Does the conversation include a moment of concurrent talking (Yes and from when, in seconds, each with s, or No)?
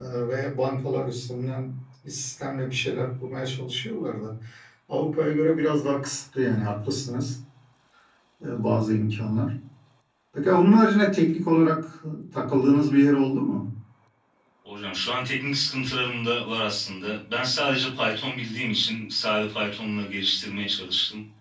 No